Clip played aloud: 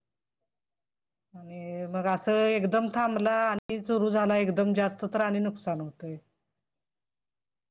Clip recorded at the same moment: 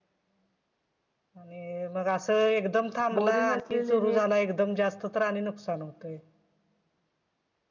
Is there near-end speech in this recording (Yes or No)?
Yes